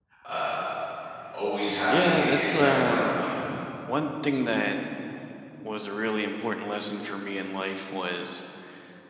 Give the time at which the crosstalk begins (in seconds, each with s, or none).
1.9 s